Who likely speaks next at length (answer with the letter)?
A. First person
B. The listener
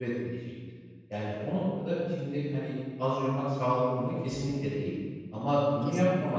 A